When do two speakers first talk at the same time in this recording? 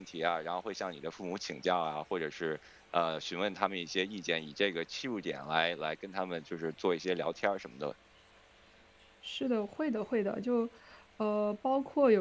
none

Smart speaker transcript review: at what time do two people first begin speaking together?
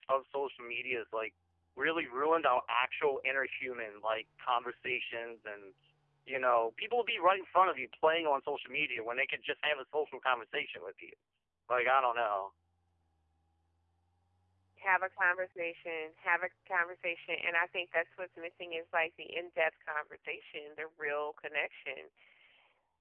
none

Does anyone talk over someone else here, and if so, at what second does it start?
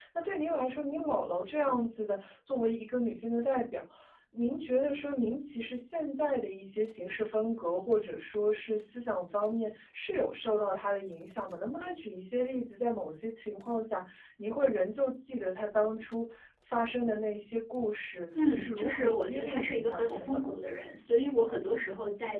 18 s

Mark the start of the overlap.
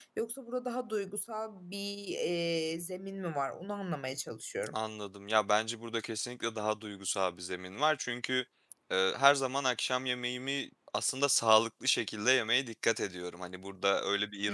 none

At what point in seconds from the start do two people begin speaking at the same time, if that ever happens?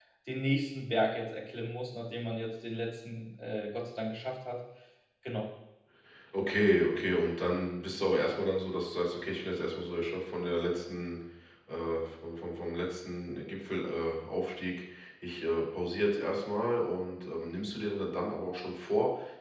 none

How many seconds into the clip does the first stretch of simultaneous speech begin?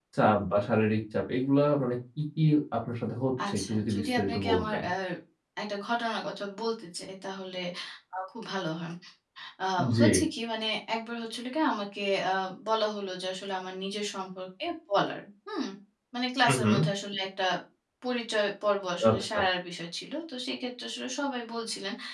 3 s

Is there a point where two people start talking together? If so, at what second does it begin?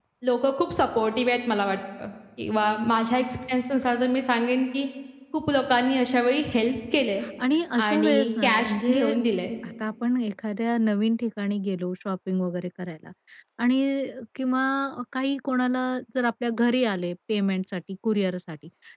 8 s

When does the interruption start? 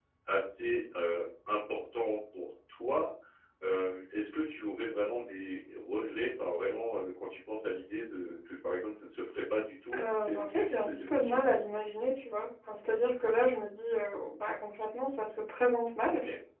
10 s

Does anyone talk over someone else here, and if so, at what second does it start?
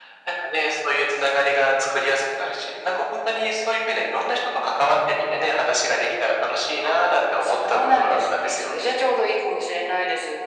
7 s

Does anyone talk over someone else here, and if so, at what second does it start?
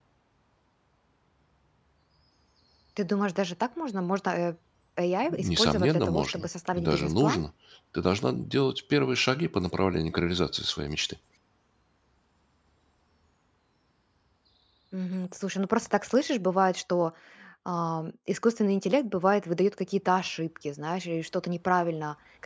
5 s

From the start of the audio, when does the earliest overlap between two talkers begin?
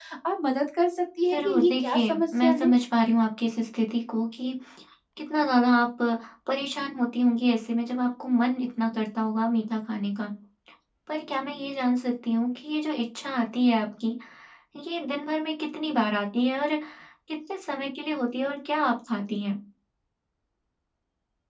1 s

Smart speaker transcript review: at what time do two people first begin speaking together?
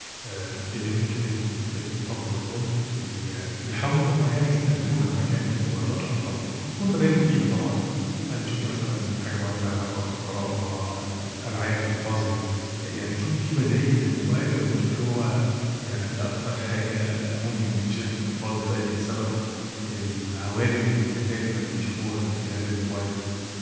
none

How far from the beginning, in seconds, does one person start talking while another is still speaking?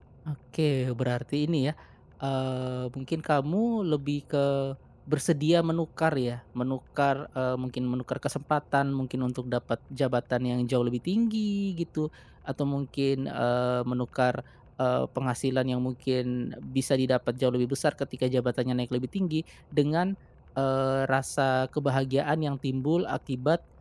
none

